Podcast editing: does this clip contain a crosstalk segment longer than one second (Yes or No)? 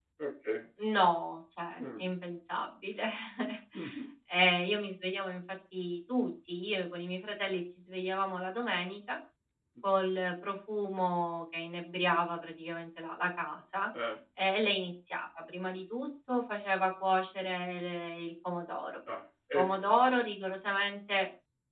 No